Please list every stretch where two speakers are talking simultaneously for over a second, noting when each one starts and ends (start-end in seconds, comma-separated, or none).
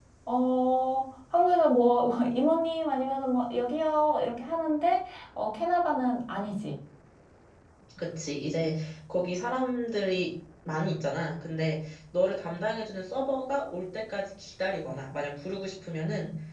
none